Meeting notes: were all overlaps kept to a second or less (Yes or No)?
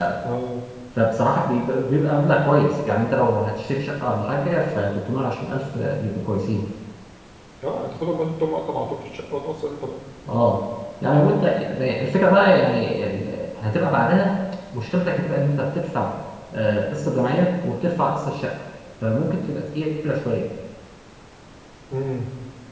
Yes